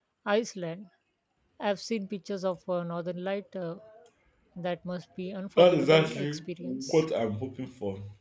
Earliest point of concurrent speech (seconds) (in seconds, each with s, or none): 5.6 s